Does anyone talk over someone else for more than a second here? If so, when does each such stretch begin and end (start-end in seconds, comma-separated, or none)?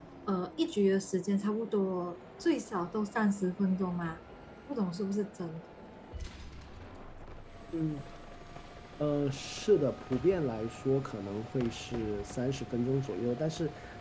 none